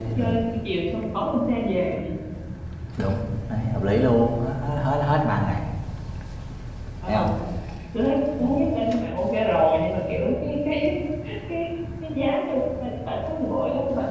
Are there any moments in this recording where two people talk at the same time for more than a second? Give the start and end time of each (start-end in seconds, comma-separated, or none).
none